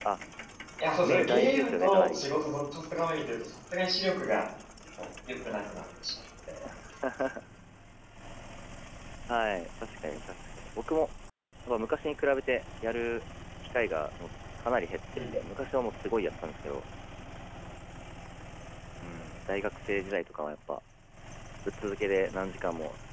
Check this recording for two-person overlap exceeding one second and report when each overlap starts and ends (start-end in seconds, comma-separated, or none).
1.0-2.2